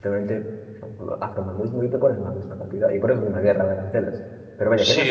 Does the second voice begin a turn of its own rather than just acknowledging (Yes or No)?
Yes